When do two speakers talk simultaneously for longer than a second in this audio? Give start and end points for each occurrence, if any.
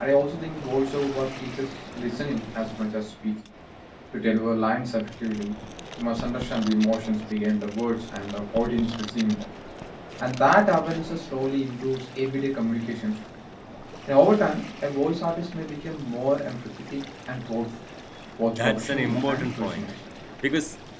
18.4-19.9

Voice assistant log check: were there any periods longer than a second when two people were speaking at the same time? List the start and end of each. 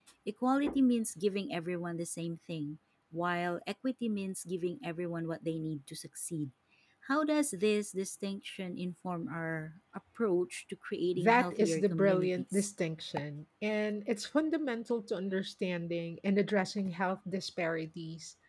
11.1-12.7

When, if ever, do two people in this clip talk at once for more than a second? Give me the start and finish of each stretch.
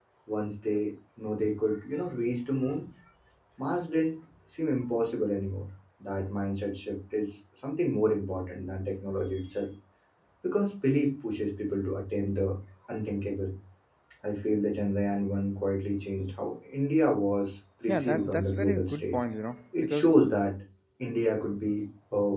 17.9-19.2

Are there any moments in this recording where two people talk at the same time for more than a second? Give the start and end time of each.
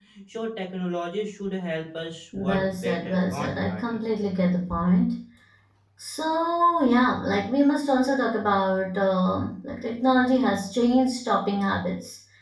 2.4-3.8

